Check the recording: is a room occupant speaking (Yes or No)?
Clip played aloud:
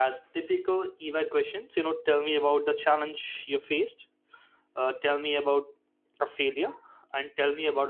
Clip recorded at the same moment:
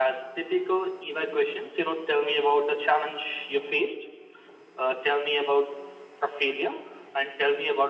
No